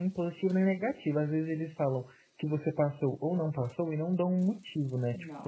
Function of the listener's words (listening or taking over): listening